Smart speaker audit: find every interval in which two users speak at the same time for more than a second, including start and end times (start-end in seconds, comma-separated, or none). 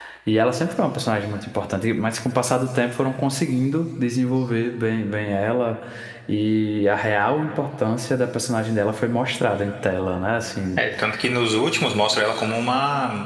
none